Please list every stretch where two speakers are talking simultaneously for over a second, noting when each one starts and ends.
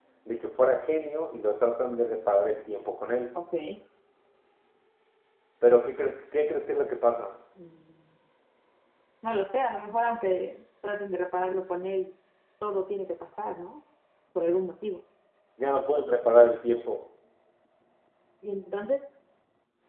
none

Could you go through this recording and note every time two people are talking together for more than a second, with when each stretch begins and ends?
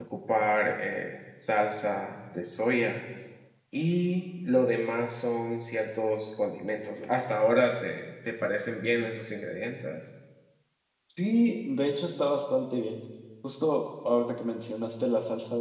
none

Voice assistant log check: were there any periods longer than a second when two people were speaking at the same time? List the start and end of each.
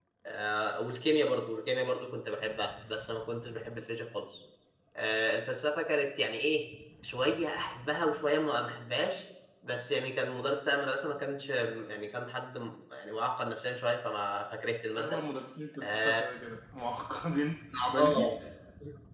none

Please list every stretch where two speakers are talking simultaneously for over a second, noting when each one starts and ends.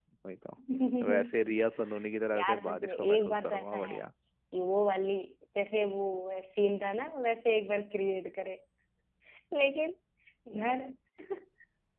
2.4-4.0

